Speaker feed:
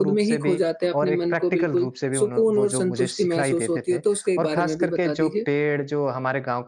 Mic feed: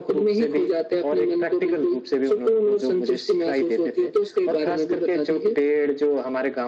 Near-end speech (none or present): none